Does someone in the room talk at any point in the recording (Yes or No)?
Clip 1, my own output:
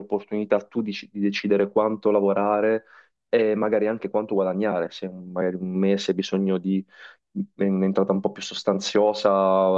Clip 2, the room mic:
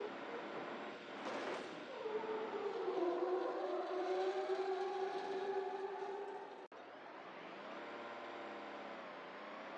No